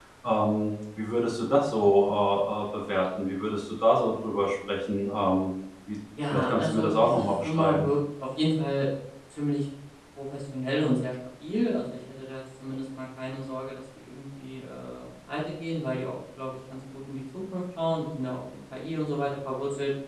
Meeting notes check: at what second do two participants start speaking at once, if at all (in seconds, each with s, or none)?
6.2 s